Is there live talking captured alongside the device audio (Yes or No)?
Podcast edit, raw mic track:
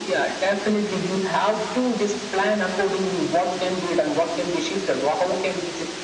No